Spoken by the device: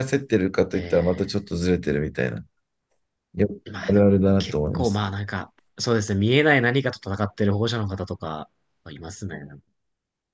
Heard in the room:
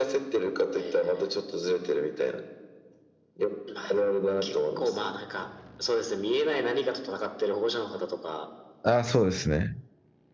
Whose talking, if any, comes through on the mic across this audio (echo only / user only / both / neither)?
both